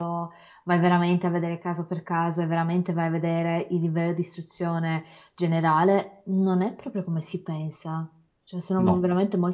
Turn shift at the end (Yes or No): No